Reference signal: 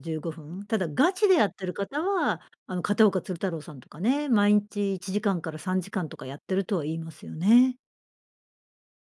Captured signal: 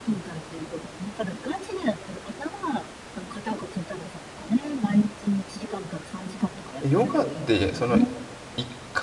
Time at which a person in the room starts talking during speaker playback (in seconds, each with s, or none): 6.8 s